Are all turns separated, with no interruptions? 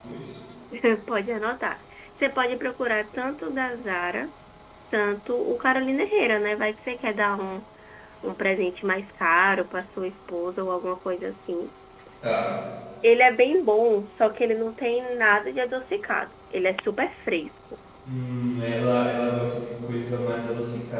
Yes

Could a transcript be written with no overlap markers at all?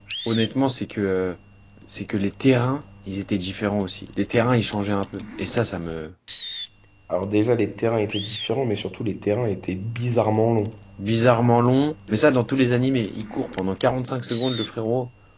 Yes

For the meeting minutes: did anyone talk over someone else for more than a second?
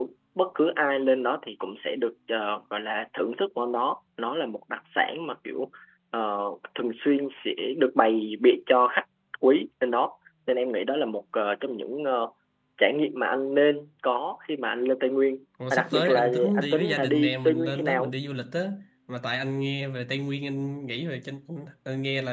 Yes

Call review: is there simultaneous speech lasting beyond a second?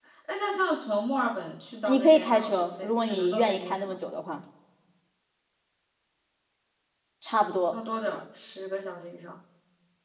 Yes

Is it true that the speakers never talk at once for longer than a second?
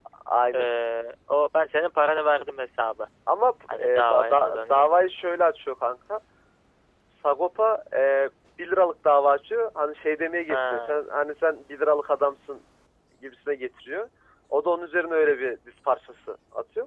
No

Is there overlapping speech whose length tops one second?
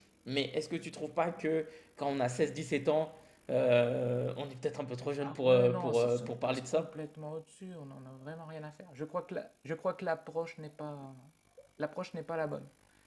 Yes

